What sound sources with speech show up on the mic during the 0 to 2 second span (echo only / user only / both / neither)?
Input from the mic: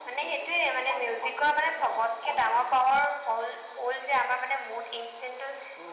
echo only